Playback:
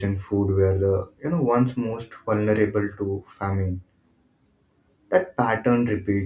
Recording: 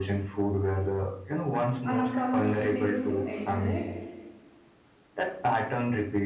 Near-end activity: present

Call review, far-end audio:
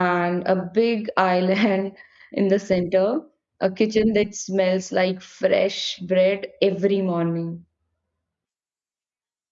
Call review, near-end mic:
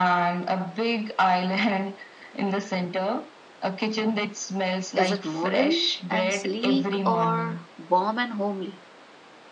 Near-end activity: present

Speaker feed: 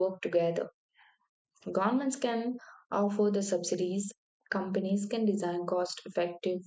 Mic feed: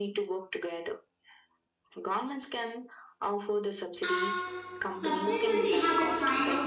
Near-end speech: present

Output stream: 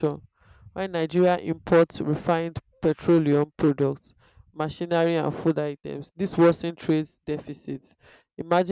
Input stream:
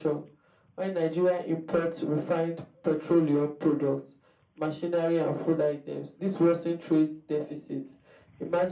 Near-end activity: none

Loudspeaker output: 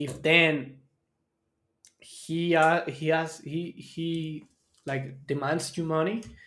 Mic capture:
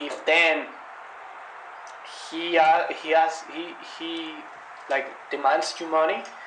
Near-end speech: none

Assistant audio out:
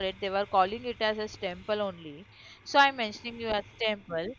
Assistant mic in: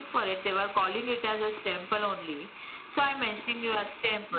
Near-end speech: none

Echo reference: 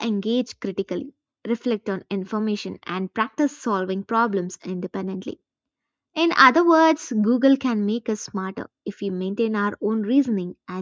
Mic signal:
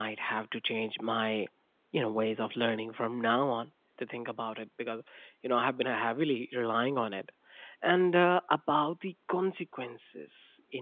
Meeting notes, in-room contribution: present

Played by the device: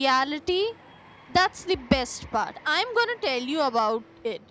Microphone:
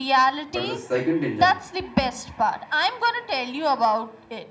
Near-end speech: present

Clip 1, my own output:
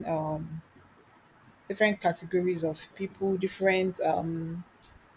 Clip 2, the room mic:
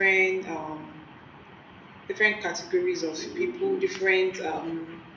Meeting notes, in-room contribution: present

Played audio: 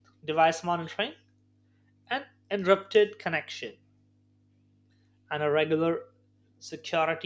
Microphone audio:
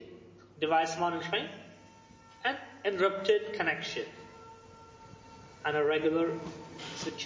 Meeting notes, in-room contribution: none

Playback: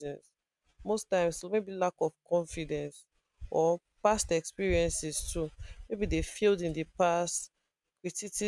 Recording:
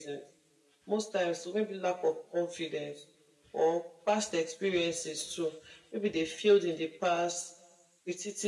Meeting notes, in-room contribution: none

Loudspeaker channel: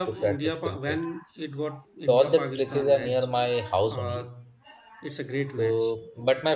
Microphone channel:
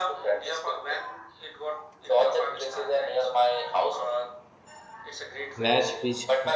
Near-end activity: present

